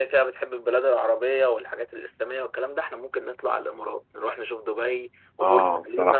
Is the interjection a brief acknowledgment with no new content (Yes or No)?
No